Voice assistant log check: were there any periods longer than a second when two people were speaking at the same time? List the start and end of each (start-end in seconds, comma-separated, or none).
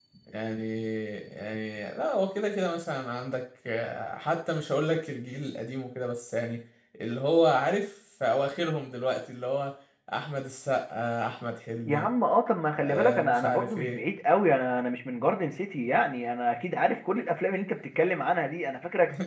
12.7-14.0